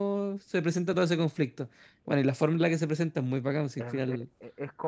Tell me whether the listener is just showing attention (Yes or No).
No